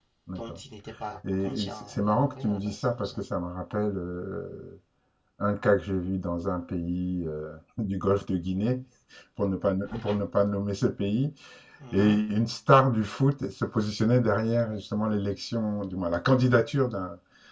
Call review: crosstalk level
present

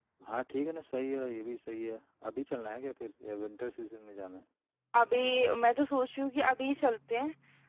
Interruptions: none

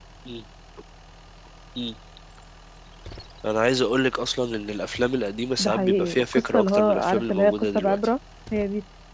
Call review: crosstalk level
present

